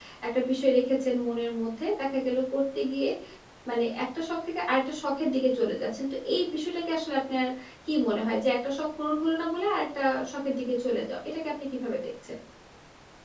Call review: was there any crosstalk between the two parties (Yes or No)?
No